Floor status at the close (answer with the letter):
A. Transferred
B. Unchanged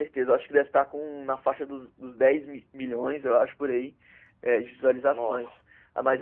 B